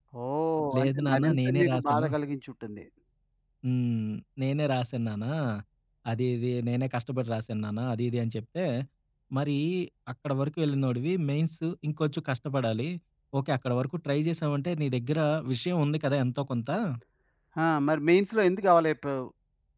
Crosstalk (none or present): present